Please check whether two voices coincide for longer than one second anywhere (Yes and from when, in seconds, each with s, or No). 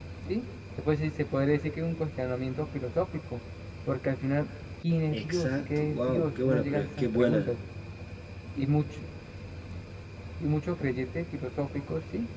Yes, from 5.1 s